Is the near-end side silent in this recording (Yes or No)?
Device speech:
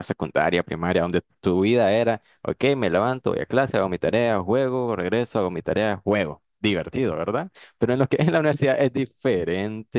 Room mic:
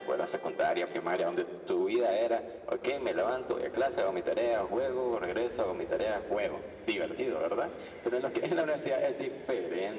Yes